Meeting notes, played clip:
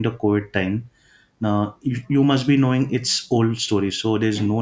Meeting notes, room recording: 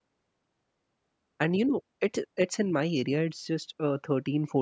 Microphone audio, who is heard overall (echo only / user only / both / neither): user only